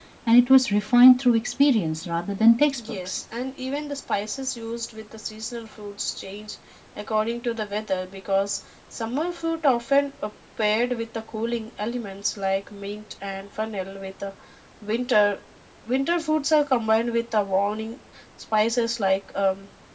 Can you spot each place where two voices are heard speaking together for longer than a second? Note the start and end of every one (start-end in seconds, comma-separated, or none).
none